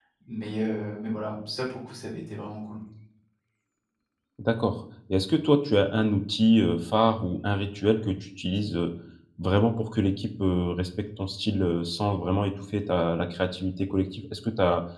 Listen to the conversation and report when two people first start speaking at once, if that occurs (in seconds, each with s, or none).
none